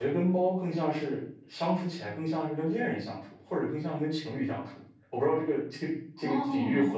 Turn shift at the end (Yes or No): Yes